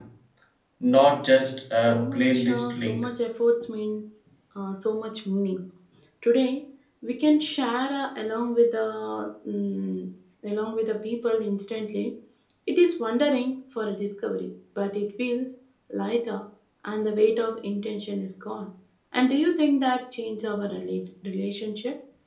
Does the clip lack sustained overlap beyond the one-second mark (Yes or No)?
No